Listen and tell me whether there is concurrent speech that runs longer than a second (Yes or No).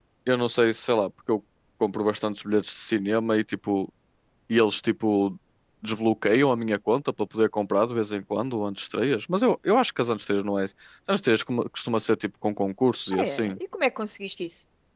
No